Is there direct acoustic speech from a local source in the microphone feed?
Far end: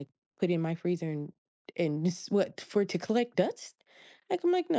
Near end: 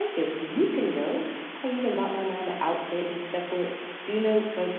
Yes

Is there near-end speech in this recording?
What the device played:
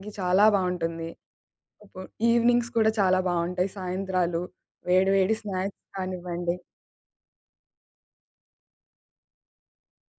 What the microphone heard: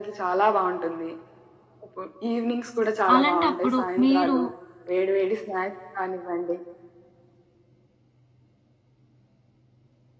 Yes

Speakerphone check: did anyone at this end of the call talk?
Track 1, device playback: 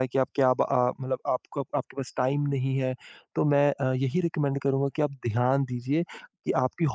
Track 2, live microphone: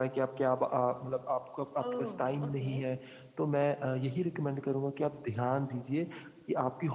Yes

